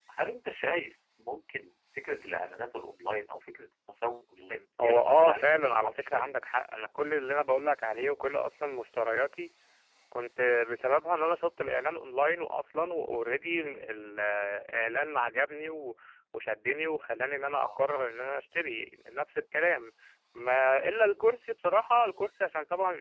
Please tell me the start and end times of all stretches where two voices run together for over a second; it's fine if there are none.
4.8-6.3

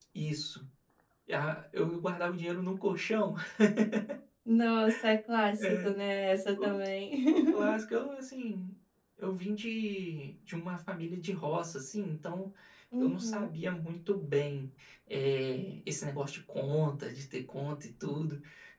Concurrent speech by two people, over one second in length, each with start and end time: none

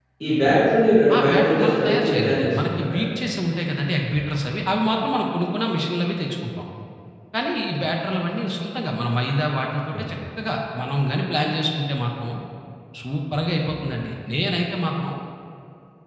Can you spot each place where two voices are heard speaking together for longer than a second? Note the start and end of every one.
1.2-3.1

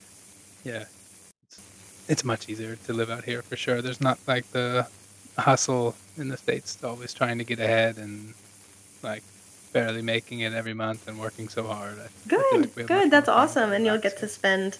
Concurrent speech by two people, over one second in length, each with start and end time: 12.5-14.3

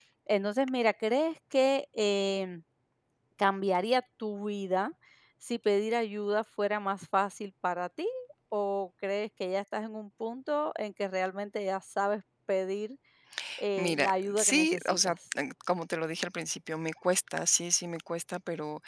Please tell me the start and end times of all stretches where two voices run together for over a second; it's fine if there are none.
13.8-15.1

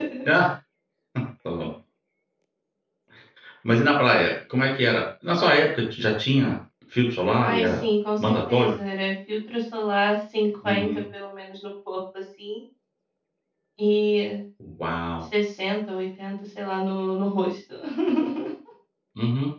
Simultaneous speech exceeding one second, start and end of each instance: none

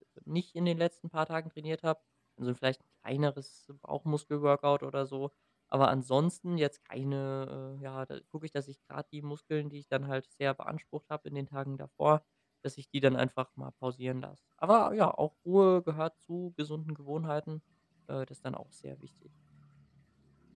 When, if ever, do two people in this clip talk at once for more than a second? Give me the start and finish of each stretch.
none

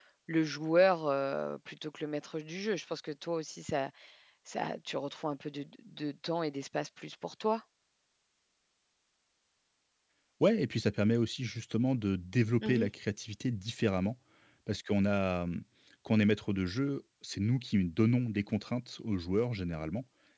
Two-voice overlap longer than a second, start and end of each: none

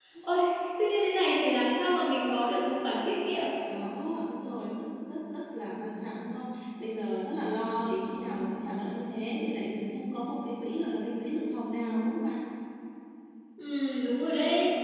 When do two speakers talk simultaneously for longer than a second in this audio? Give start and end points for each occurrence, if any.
none

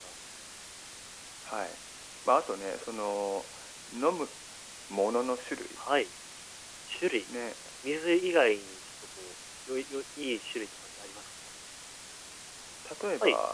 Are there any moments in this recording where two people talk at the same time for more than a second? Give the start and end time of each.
none

